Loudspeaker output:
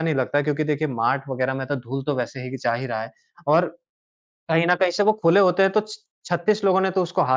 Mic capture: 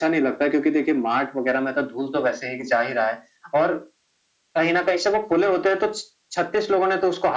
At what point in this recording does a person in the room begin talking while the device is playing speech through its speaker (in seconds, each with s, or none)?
none